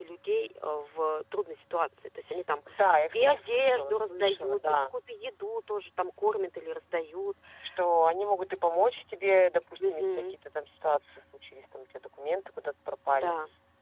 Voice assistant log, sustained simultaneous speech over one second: present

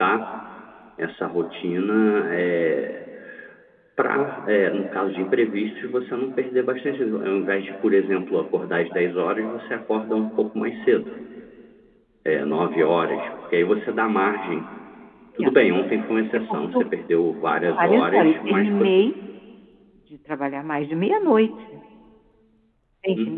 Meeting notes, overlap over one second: present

